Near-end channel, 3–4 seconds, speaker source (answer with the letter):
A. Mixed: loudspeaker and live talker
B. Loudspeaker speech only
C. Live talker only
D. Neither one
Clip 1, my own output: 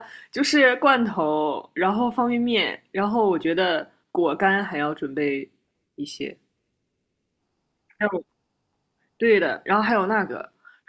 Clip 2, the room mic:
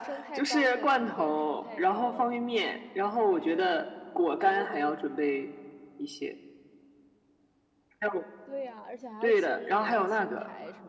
A